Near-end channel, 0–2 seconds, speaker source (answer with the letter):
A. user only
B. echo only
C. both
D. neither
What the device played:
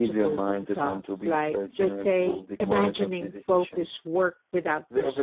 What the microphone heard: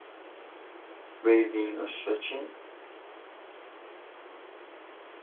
A